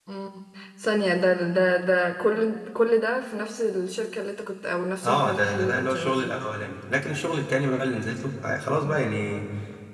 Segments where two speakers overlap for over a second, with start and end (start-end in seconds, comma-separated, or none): 5.0-6.3